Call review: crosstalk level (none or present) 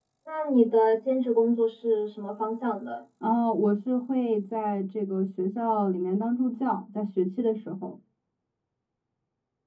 none